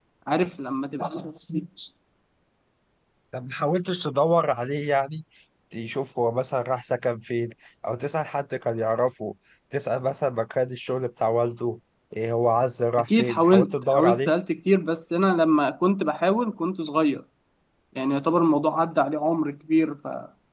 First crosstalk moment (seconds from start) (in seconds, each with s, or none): 13.0 s